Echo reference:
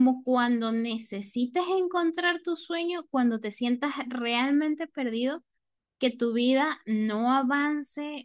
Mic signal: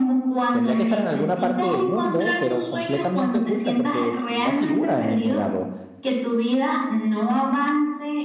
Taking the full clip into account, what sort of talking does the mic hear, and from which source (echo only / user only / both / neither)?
both